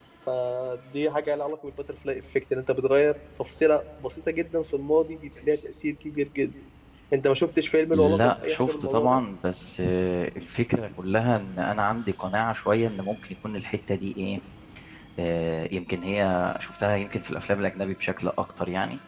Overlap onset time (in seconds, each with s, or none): 7.9 s